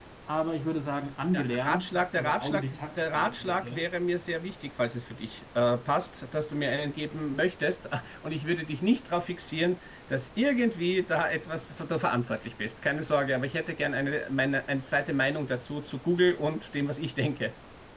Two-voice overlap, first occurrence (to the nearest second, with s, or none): 1 s